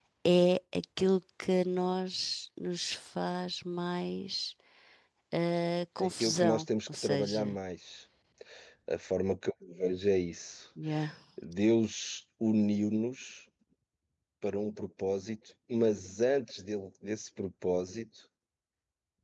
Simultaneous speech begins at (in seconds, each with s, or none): 6.0 s